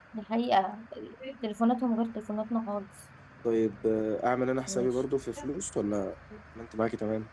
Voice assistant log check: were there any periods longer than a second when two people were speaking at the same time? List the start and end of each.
none

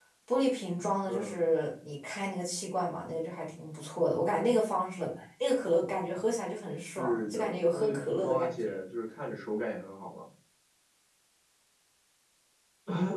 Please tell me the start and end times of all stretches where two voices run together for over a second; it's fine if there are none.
7.0-8.8

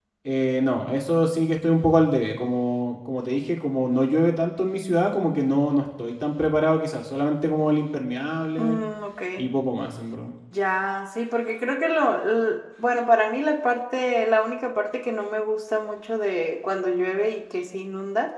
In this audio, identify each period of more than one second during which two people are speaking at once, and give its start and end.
none

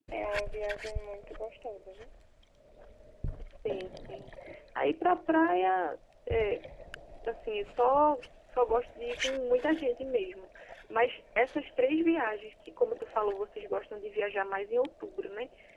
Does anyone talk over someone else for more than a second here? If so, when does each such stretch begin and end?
none

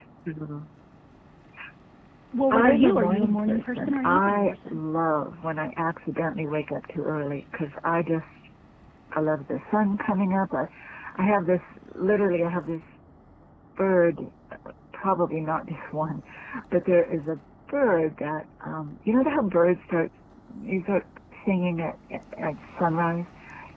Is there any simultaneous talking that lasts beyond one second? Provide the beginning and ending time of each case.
2.5-4.8

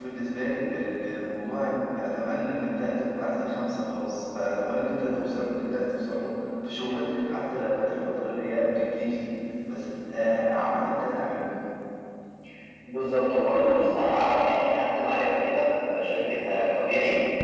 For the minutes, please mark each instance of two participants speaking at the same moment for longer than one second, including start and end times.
none

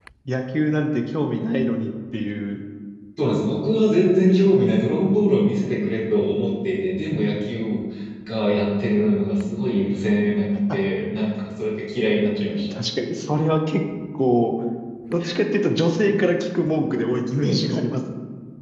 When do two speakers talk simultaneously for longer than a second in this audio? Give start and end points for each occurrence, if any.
none

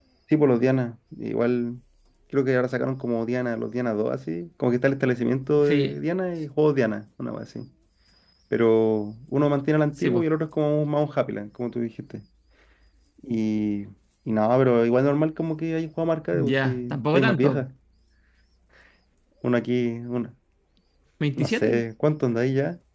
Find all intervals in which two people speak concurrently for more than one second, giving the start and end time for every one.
16.3-17.6

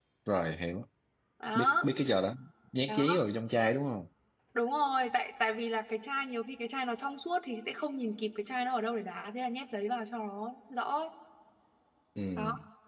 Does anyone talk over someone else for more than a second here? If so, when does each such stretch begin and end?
none

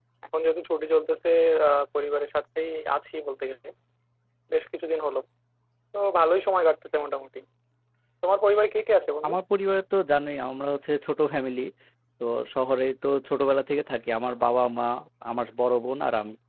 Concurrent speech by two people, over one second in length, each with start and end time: none

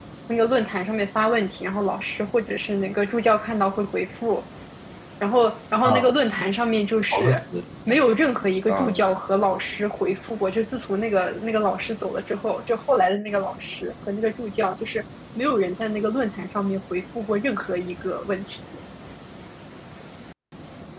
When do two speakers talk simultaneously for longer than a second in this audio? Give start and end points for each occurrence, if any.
none

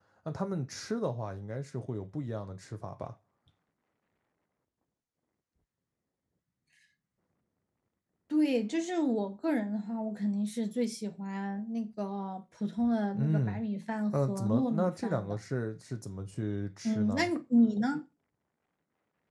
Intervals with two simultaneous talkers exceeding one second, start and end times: 14.1-15.4

